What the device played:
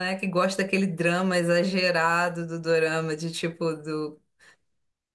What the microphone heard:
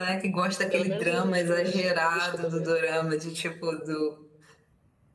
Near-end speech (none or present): present